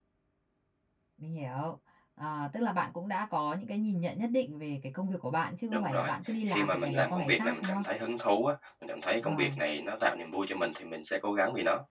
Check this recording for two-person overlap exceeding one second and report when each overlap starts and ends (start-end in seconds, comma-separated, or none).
6.5-7.8